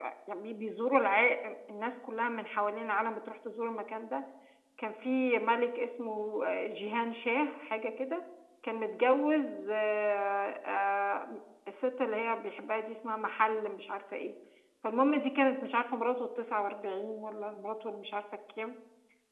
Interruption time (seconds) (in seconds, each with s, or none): none